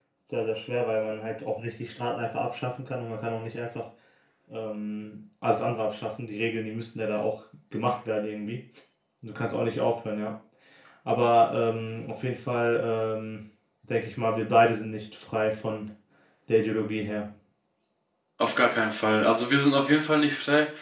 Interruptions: none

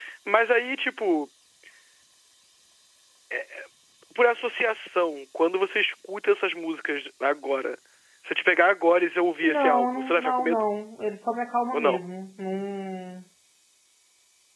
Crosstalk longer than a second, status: present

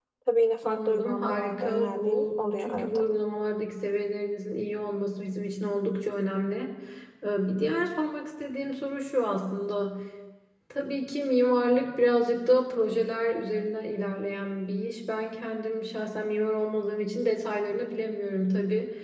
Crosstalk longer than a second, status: present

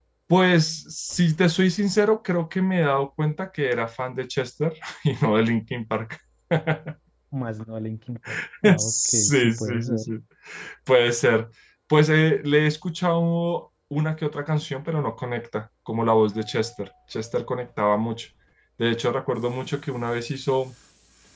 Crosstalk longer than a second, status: present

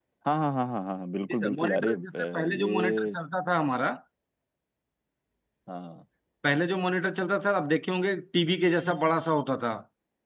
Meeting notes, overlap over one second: present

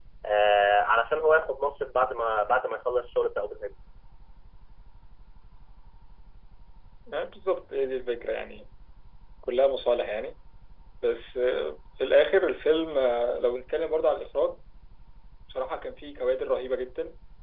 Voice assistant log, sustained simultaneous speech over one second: none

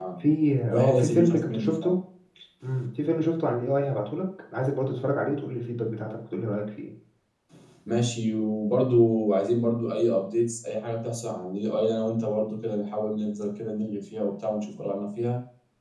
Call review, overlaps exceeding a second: present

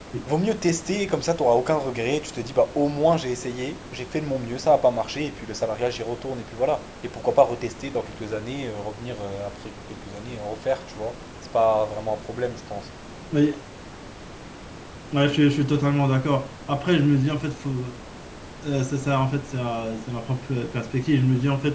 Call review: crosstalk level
none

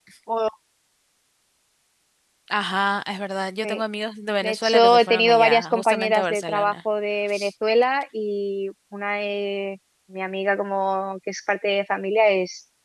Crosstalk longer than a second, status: present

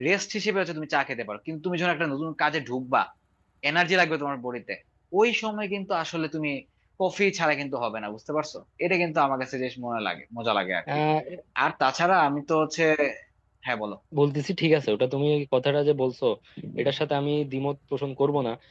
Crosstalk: none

